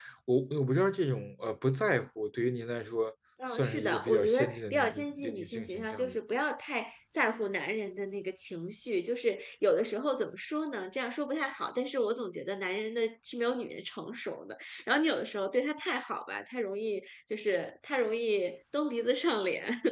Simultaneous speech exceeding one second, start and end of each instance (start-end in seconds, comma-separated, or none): 3.5-6.2